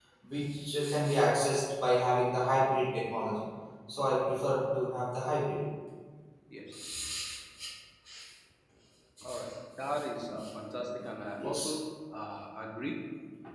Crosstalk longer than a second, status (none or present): none